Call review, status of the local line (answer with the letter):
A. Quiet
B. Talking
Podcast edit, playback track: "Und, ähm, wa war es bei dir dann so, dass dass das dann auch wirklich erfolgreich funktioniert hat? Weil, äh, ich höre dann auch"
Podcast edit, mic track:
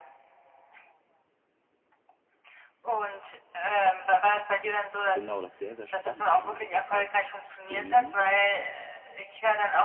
B